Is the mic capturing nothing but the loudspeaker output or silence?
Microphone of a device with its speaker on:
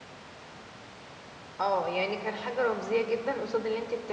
No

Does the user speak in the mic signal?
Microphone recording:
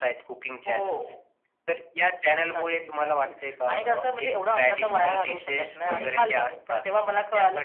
Yes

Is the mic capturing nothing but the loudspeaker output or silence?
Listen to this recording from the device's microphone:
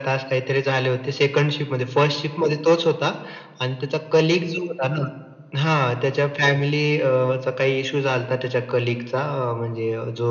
Yes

